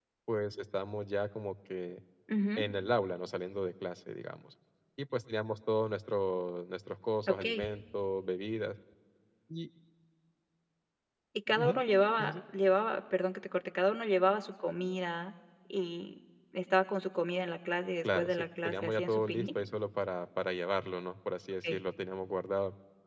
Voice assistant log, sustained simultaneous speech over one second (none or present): present